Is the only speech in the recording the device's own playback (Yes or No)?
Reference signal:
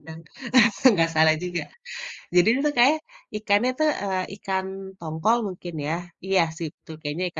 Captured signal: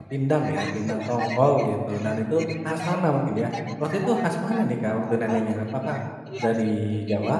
No